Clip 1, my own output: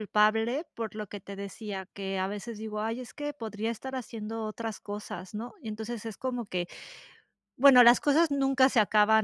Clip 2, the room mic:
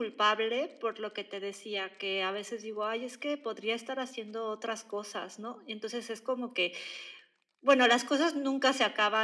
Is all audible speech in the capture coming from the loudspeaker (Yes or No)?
Yes